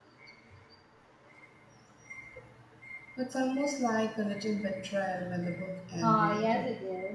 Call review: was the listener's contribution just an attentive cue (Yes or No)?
No